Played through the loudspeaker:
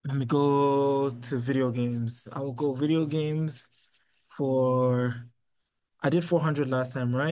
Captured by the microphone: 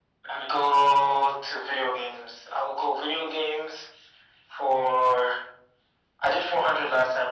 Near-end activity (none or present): none